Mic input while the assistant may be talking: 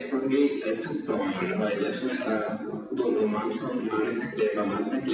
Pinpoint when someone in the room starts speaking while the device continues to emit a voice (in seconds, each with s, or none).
none